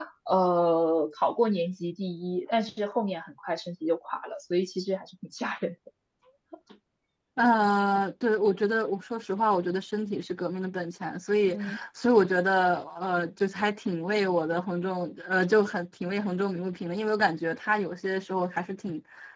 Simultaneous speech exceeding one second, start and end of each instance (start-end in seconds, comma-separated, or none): none